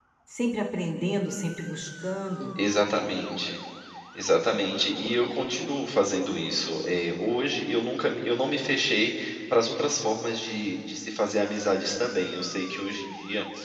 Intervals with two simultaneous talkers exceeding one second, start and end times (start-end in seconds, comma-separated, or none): none